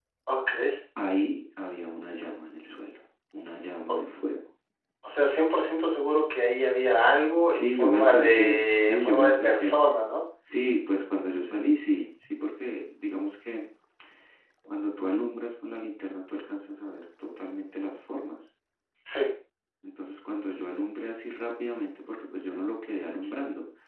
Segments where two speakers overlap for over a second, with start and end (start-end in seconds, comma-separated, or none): 7.5-9.8